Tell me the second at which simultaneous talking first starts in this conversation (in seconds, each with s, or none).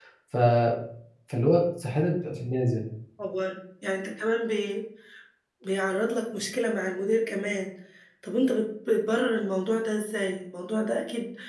none